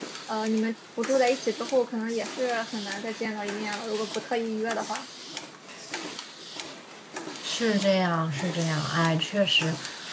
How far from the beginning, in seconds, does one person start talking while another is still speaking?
none

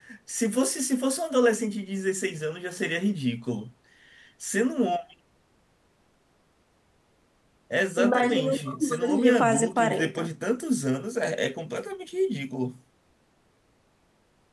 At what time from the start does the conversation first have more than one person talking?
8 s

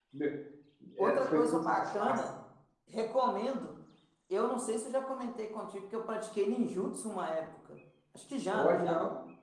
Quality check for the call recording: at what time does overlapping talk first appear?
1 s

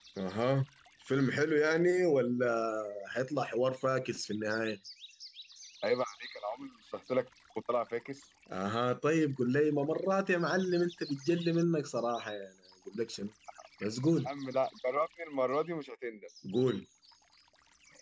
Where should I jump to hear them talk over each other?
none

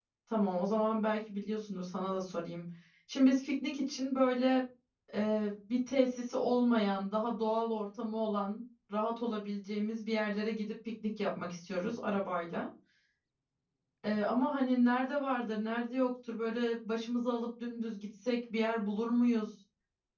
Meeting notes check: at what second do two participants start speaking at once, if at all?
none

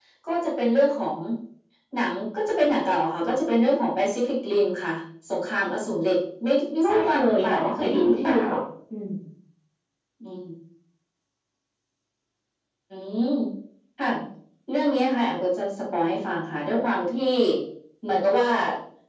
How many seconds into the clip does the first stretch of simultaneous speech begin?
7 s

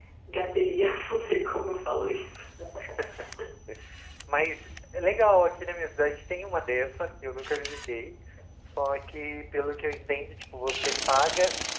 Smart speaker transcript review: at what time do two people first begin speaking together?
none

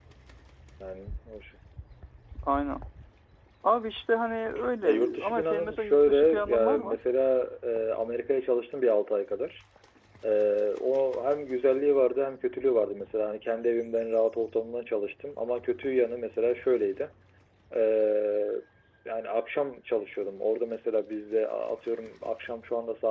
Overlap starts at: 5 s

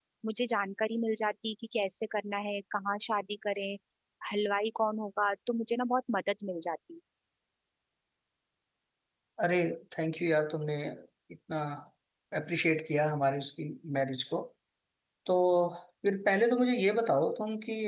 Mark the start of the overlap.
none

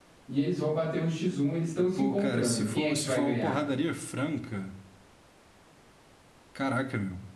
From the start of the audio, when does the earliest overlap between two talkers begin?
2 s

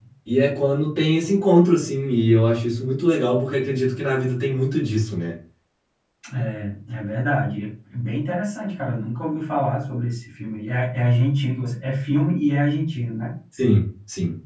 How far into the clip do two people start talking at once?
none

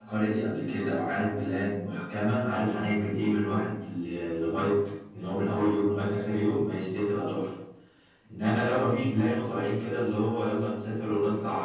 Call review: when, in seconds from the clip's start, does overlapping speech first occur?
none

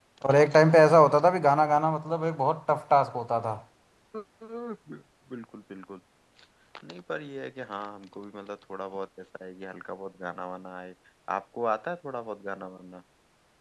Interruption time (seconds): none

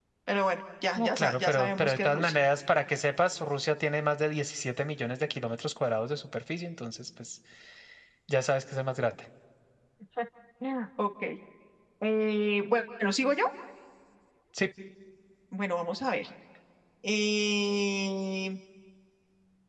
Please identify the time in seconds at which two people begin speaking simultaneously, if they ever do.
1 s

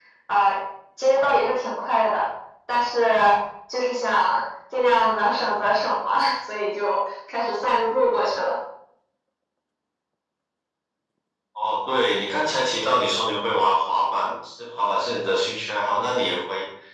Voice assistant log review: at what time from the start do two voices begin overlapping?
none

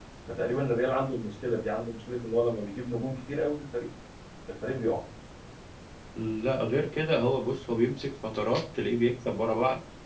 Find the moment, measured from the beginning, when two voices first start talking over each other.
none

